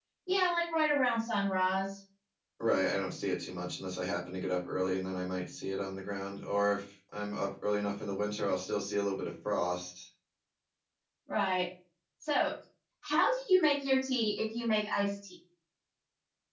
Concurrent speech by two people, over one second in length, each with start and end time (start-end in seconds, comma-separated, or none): none